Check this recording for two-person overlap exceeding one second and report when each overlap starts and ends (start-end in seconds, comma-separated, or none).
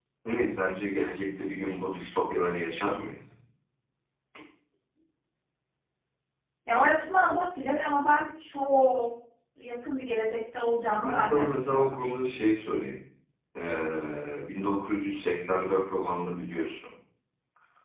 10.8-12.0